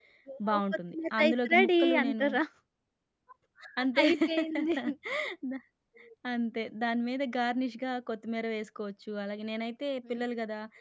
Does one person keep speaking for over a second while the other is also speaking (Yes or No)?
Yes